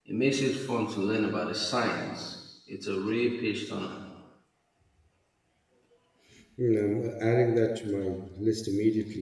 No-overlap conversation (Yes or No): Yes